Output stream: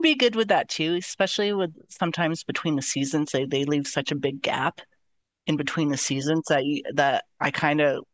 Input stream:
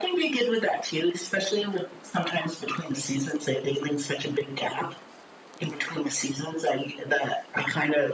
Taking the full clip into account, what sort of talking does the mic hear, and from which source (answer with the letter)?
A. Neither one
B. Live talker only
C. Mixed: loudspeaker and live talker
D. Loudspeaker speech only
D